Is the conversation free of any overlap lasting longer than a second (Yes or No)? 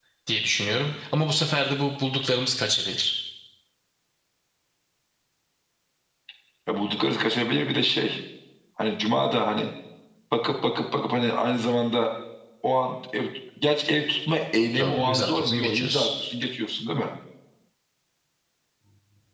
No